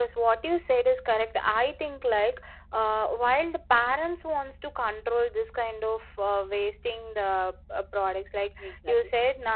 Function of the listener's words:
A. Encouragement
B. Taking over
A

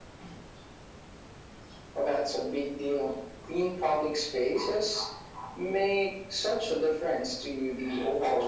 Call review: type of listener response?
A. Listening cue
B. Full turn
B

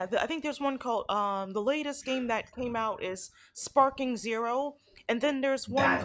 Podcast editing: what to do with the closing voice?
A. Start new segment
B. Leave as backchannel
B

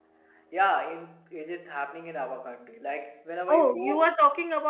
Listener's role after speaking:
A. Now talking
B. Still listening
A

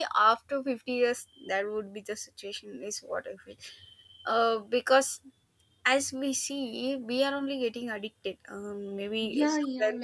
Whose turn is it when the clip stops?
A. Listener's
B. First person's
A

